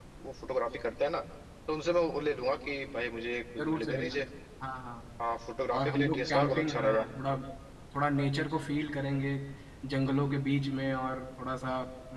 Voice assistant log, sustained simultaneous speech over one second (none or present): present